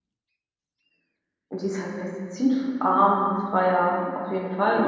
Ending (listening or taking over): taking over